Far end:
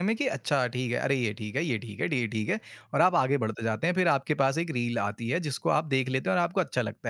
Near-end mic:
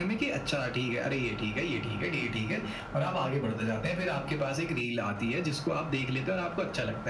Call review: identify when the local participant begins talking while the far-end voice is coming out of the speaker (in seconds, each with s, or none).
none